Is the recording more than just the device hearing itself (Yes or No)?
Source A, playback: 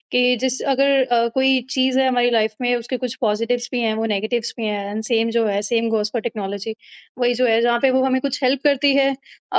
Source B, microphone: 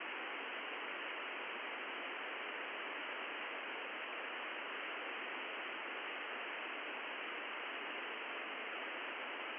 No